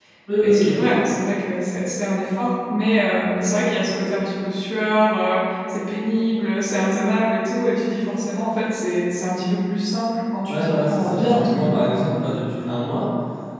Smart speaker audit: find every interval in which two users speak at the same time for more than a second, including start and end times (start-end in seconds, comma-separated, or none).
10.5-11.8